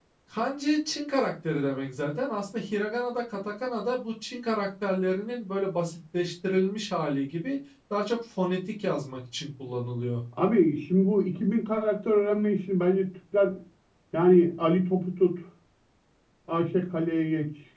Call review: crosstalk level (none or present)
none